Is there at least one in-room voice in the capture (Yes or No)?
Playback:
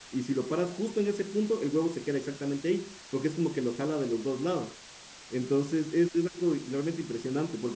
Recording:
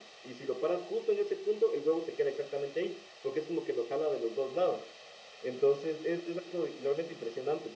No